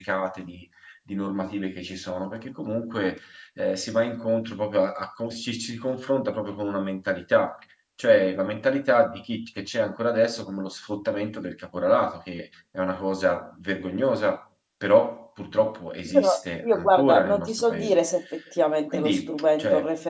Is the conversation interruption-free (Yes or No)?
No